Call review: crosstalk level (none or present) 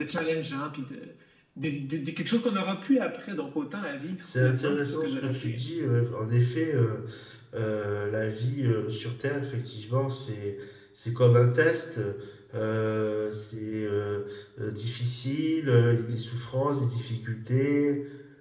present